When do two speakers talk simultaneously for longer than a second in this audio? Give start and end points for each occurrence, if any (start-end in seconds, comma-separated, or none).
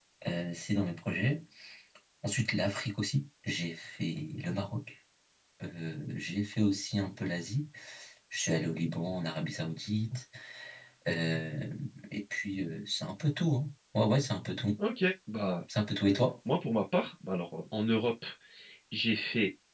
none